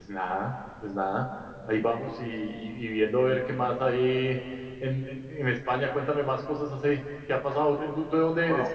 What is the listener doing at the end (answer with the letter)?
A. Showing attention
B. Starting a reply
B